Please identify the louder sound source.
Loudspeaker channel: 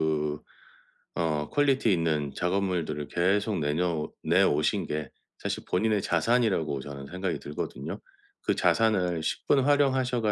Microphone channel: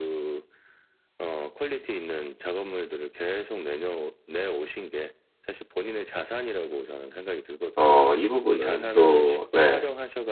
user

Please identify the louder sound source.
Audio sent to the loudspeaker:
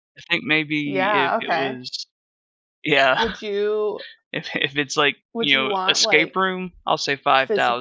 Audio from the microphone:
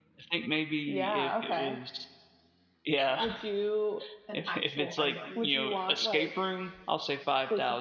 echo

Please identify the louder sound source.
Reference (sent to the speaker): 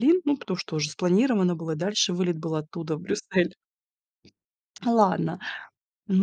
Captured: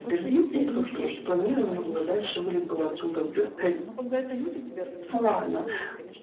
echo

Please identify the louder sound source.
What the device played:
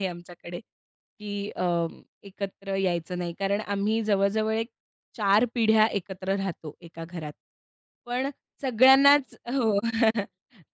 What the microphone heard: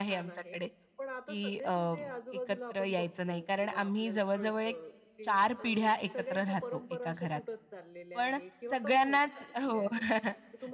echo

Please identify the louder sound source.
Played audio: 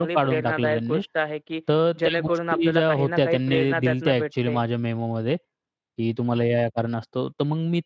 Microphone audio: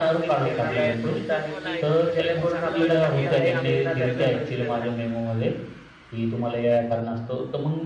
echo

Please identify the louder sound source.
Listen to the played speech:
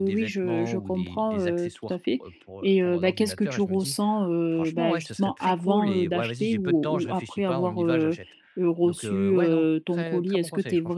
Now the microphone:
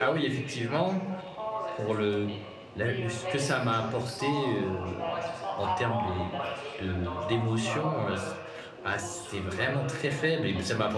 user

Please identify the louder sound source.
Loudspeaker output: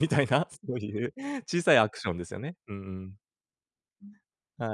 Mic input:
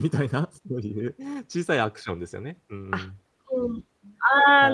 user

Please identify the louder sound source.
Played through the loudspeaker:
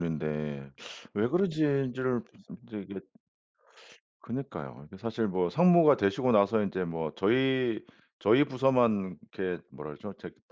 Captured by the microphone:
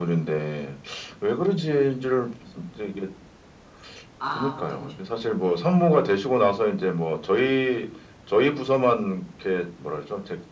echo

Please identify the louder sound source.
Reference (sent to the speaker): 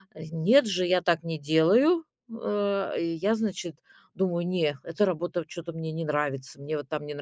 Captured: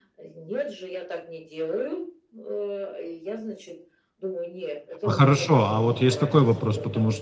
user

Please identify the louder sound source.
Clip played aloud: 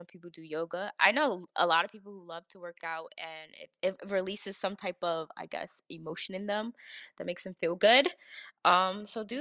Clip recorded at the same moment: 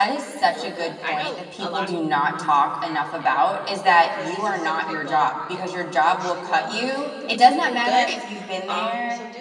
user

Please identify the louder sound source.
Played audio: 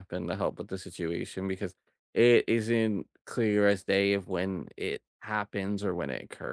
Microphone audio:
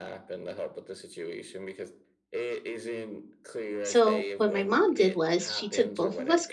user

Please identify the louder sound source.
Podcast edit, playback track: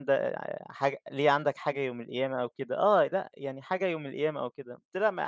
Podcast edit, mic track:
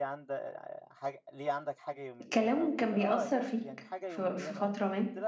user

